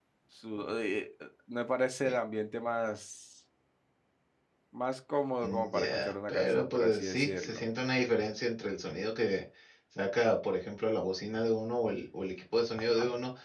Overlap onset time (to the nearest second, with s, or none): 5 s